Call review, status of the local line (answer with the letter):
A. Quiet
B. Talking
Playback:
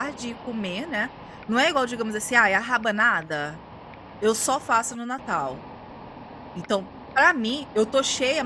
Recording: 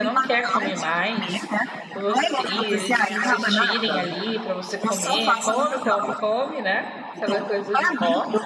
B